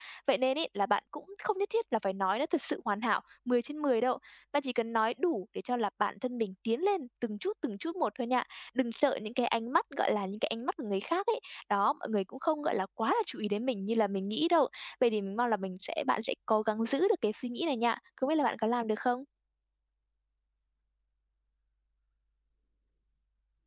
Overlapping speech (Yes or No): No